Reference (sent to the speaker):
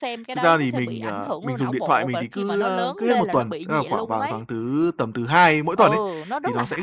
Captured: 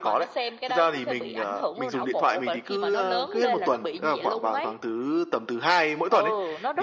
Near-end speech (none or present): none